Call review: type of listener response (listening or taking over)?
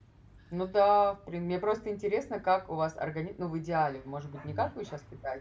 listening